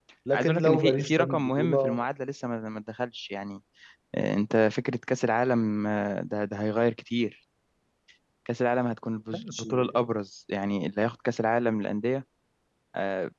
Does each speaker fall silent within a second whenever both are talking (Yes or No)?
No